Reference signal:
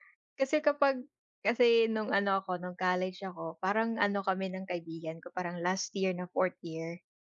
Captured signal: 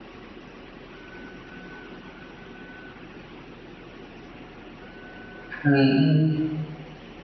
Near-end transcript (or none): Mm. mm.